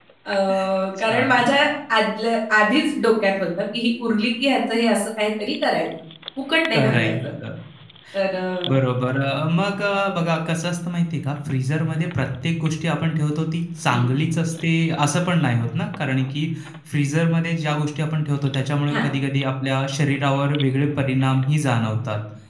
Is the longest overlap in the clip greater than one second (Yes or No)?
No